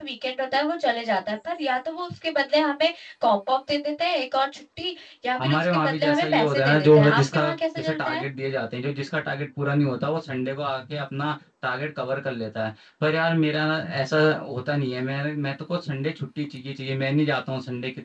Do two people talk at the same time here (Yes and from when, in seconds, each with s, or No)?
Yes, from 5.4 s